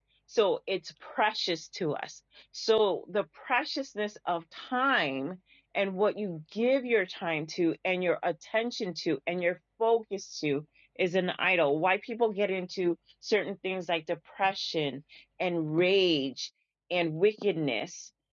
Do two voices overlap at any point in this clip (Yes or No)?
No